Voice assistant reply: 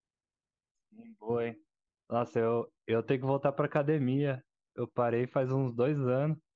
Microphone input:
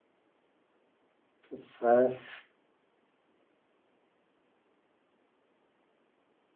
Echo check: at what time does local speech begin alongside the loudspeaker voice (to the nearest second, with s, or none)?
1 s